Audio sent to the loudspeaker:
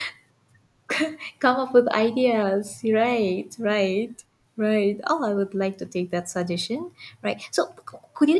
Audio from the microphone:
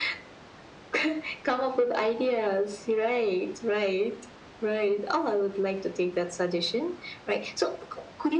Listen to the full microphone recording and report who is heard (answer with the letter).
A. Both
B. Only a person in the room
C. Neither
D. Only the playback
D